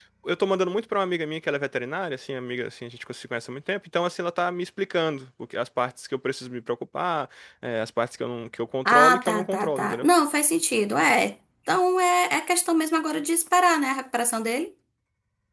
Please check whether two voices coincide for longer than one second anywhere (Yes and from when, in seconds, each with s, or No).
Yes, from 8.8 s